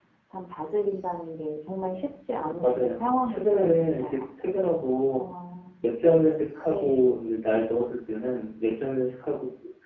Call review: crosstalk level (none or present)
present